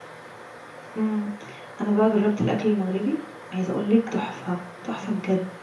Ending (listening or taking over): taking over